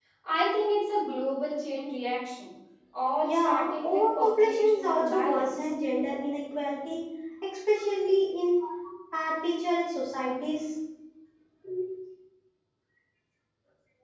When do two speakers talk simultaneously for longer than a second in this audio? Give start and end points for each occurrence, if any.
3.2-5.7

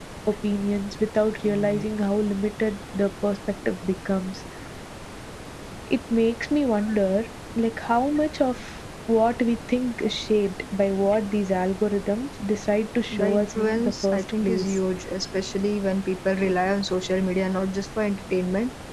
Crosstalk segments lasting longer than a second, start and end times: 13.1-14.8

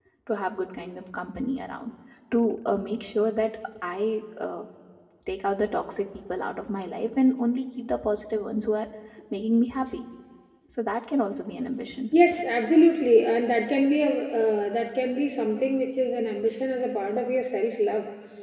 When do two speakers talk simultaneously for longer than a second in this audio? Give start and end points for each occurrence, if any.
none

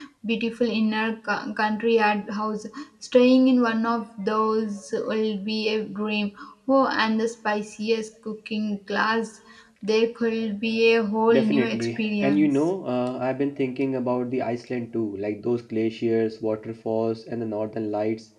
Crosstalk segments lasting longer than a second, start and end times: 11.3-12.7

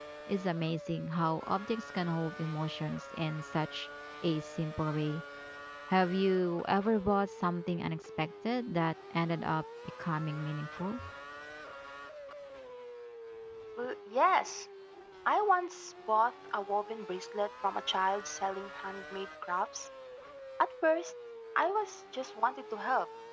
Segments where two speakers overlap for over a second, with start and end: none

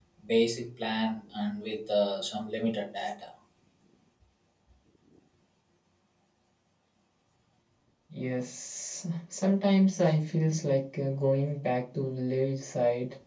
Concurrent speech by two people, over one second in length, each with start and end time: none

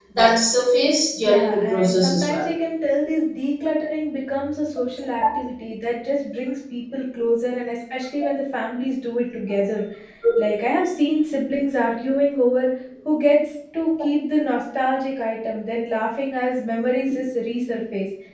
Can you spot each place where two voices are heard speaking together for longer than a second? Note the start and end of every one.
1.2-2.5

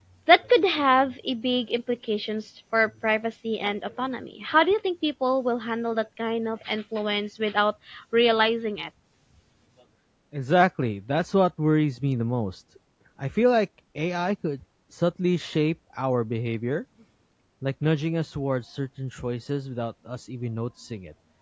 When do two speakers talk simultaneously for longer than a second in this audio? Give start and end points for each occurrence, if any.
none

